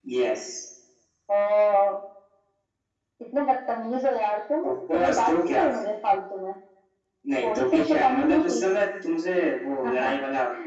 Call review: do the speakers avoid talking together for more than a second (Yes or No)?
No